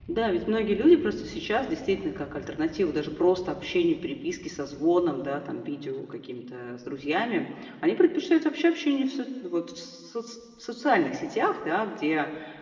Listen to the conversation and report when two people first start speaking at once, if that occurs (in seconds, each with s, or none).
none